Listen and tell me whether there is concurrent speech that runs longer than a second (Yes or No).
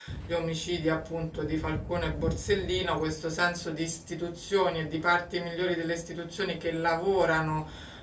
No